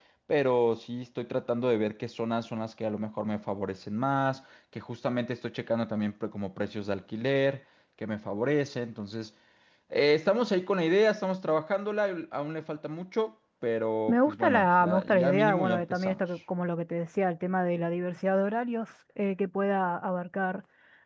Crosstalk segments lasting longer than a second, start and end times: 14.1-16.2

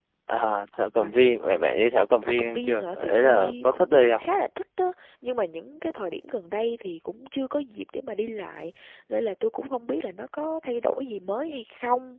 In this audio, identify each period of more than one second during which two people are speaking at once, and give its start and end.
2.2-4.2

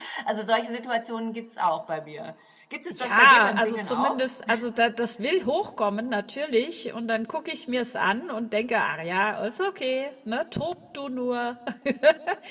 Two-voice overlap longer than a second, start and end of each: 2.9-4.2

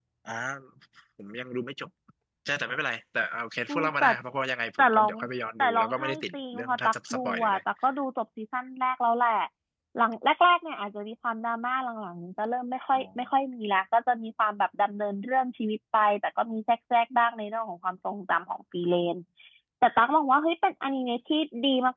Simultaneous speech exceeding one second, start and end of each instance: 5.6-7.6

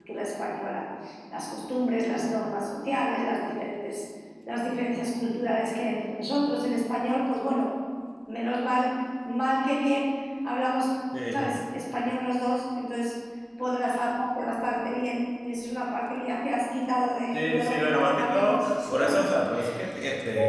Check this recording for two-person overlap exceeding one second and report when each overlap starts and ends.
17.3-19.3

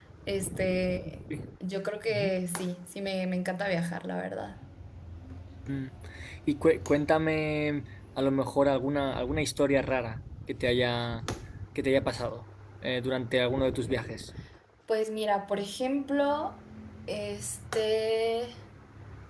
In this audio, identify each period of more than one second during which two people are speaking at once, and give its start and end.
none

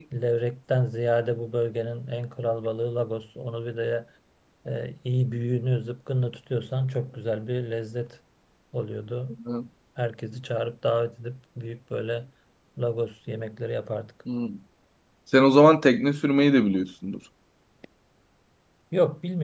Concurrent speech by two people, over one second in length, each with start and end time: none

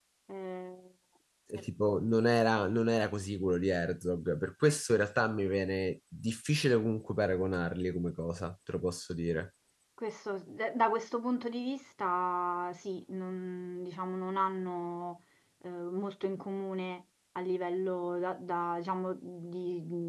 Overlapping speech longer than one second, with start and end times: none

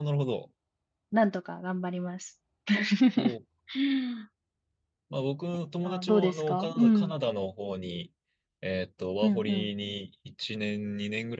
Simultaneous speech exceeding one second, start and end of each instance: 5.8-7.1

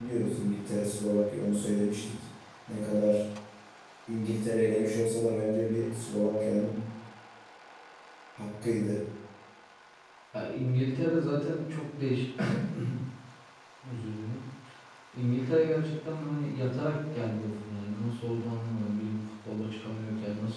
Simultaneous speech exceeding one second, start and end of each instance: none

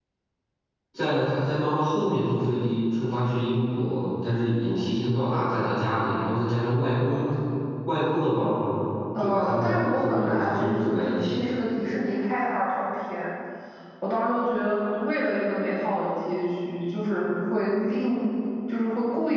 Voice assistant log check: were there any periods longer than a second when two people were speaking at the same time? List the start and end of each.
9.2-11.4

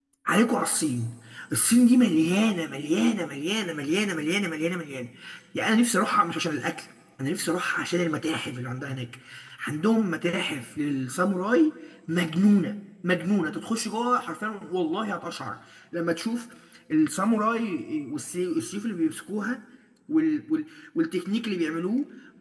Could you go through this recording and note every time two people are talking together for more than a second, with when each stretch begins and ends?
none

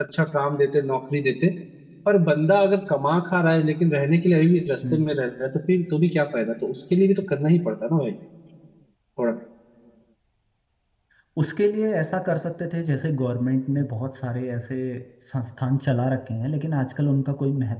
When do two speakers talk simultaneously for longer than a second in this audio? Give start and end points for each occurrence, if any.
none

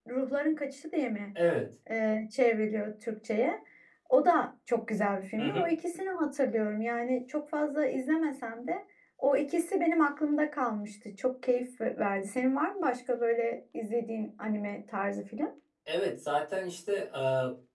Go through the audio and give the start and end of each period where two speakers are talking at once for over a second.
none

